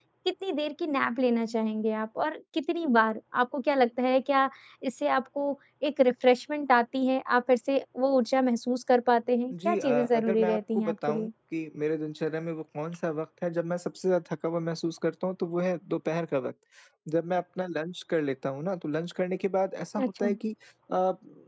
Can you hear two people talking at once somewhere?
Yes, from 9.5 s

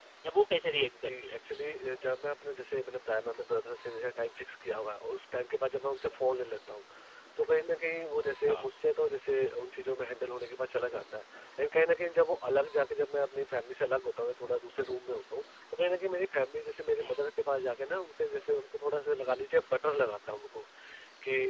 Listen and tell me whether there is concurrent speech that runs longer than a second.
No

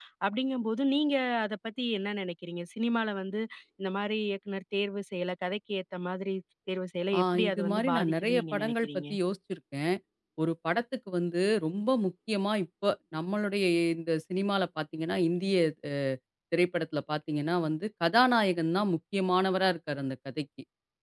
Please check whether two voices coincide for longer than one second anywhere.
Yes, from 7.1 s

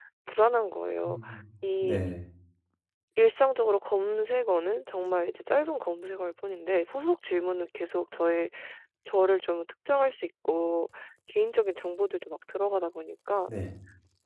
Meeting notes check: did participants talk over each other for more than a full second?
No

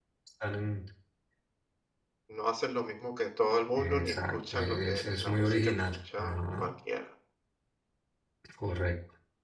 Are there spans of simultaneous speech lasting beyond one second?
Yes, from 3.8 s

